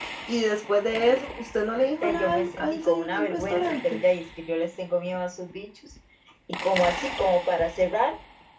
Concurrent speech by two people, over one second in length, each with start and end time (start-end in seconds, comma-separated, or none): 2.0-4.0